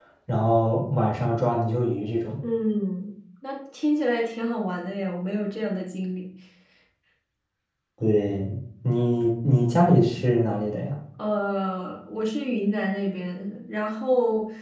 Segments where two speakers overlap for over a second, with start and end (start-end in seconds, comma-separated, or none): none